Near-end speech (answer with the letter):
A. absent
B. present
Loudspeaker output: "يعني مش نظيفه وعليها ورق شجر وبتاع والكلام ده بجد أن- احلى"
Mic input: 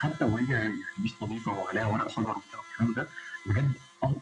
A